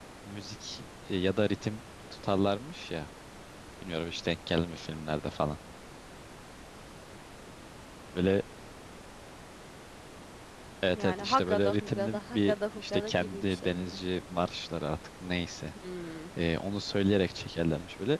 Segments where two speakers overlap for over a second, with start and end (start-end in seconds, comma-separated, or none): 10.9-14.0